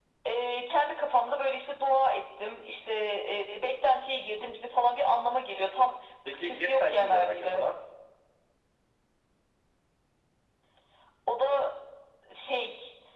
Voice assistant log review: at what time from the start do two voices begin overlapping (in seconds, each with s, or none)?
6.2 s